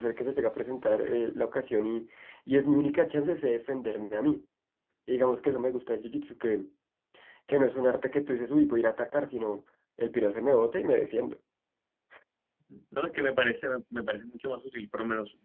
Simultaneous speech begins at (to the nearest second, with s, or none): none